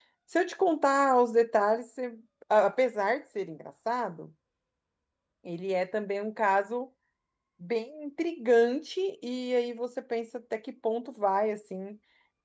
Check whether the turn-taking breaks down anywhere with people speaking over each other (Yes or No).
No